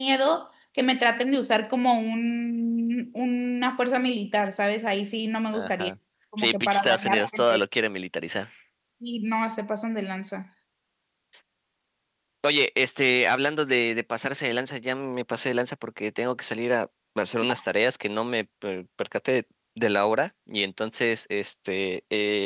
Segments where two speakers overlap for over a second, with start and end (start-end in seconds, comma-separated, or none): 6.4-7.6